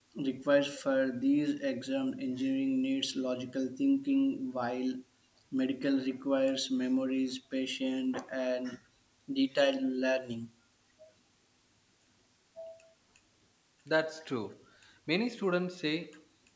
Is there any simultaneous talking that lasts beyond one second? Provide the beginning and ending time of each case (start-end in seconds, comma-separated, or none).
none